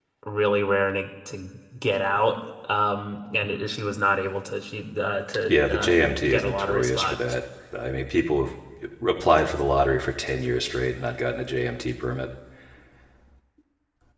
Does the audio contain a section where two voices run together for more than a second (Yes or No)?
Yes